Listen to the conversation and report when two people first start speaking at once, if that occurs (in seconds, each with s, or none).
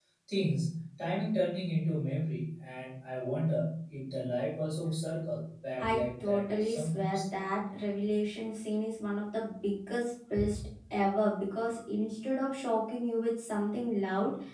5.8 s